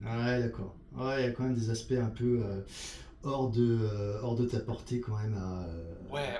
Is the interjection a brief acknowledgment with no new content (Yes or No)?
No